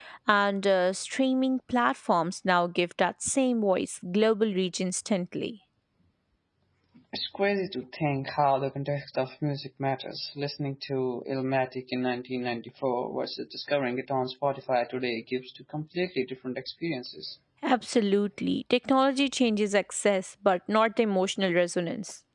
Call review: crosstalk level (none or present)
none